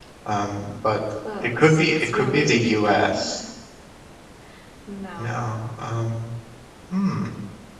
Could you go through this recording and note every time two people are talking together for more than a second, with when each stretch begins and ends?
1.6-3.4

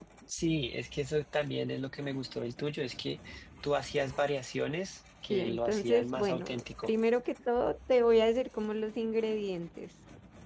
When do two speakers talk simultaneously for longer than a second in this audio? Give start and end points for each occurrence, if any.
5.3-6.9

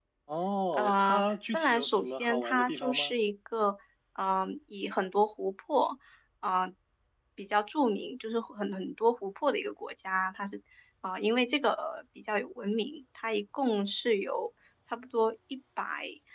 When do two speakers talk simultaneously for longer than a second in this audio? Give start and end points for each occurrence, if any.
0.8-3.1

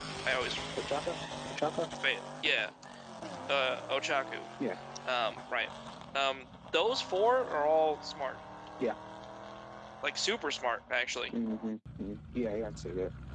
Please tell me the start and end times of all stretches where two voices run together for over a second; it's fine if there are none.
none

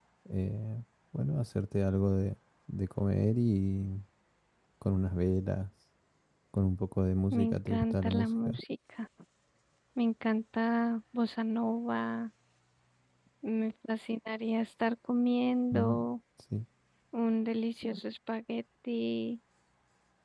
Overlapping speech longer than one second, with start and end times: 7.3-8.6

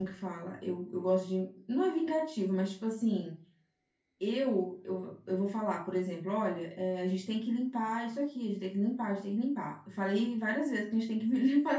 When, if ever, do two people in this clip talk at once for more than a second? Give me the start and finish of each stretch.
none

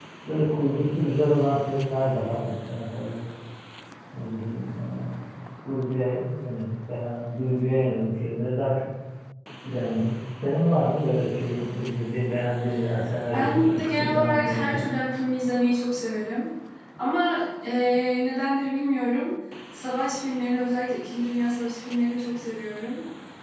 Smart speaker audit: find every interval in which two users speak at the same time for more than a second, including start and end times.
13.3-14.9

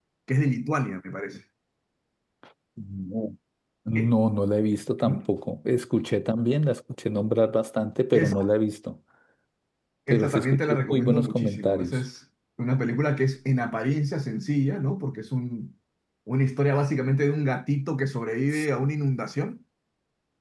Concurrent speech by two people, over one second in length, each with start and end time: 10.1-12.0

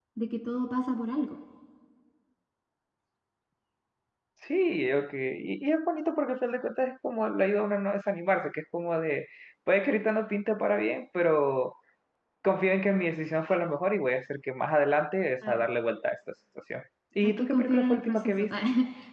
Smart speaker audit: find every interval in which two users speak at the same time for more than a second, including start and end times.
17.2-18.5

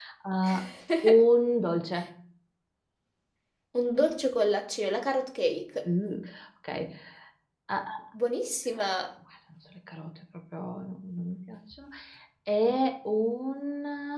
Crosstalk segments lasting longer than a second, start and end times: none

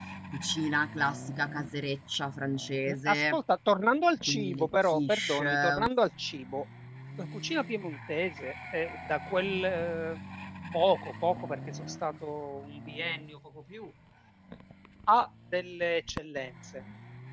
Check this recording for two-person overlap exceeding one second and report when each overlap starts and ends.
4.3-5.9

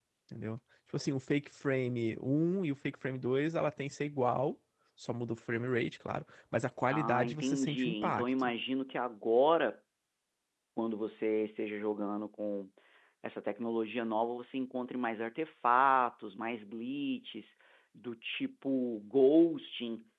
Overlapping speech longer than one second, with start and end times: 6.9-8.5

